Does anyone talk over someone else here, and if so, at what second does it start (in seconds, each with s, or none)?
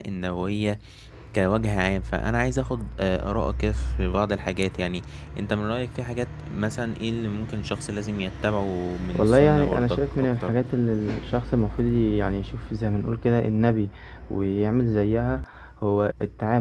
9.1 s